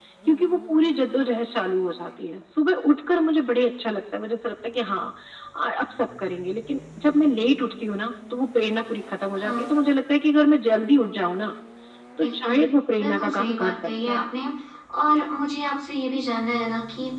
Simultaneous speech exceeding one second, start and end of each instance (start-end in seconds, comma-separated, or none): 13.0-14.2